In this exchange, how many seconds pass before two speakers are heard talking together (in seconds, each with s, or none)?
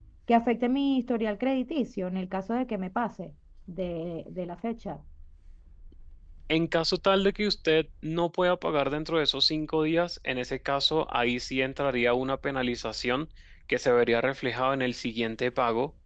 none